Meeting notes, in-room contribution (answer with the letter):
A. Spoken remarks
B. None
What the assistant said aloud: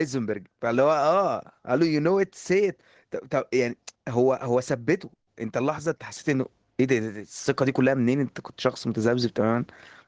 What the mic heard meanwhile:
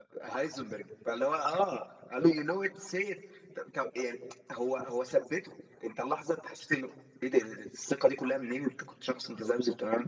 B